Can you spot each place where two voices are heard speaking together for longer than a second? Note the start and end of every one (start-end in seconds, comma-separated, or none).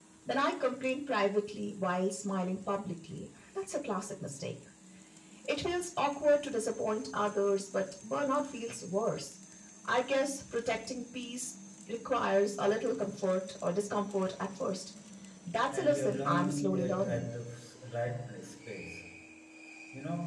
15.7-17.3